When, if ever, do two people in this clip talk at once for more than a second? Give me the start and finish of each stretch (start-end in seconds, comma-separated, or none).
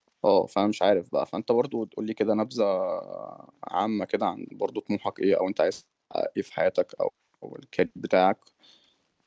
none